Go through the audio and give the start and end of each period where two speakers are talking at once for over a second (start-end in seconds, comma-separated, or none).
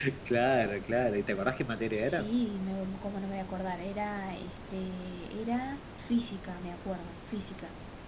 none